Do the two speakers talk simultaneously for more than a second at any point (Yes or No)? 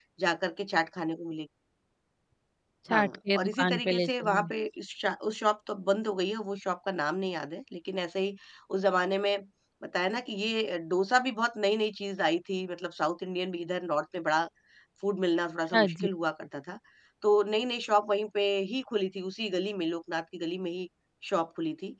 Yes